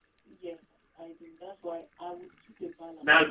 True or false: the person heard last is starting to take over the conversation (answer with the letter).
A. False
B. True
B